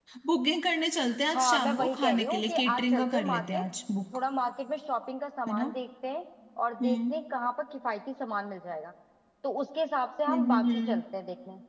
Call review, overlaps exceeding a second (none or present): present